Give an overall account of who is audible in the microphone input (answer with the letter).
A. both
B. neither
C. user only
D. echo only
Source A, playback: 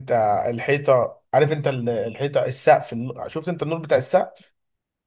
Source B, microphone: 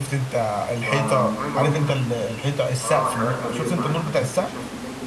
A